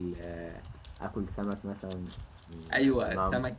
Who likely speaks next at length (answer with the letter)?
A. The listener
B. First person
A